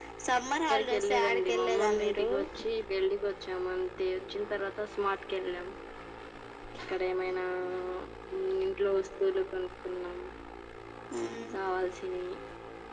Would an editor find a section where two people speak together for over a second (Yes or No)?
Yes